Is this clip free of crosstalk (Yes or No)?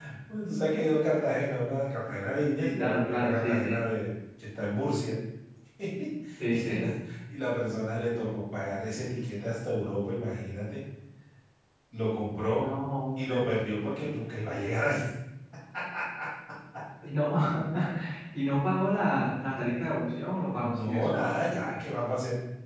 No